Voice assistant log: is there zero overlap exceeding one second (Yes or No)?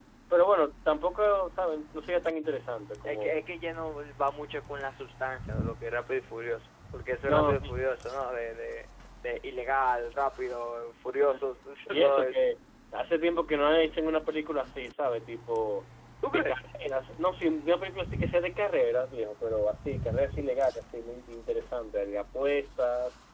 Yes